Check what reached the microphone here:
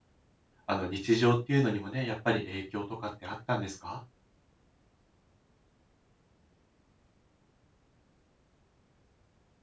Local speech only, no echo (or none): あの、日常っていうのにもね、やっぱり影響とかってあったんですか？